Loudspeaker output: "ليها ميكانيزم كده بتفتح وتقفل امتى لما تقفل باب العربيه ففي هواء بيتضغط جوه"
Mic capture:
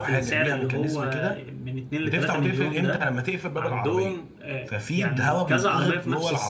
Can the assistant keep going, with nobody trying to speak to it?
No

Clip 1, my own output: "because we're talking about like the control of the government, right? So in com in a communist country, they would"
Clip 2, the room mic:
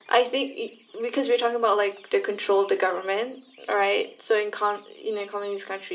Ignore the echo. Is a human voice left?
No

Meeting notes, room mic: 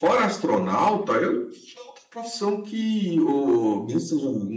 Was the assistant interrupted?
No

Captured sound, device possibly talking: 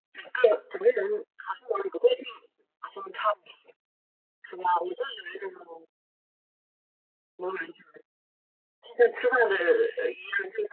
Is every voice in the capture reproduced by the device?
Yes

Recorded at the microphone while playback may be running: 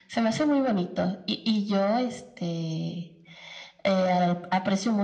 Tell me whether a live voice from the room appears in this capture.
No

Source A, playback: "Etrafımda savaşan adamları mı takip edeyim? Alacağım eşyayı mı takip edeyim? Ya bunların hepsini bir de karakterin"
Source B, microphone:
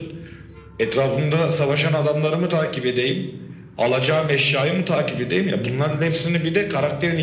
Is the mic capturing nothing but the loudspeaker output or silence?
Yes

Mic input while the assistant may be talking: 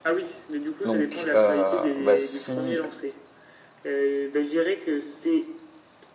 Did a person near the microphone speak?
Yes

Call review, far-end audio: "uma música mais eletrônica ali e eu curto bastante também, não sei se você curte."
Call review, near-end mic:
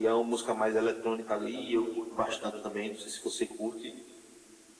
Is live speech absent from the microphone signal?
Yes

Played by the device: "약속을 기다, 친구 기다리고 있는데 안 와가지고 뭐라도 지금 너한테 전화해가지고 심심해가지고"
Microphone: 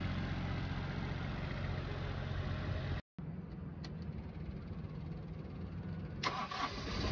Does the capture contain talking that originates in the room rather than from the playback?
No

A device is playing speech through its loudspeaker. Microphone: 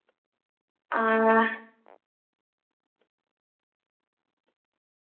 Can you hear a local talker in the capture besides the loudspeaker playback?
Yes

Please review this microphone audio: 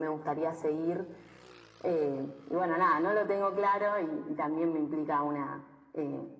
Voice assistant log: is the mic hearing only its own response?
Yes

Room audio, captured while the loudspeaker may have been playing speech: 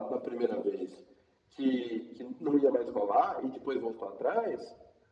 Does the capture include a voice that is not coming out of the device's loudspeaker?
No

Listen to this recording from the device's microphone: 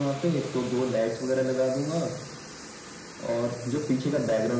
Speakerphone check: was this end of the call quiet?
Yes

